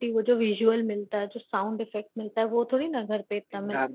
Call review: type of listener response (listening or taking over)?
taking over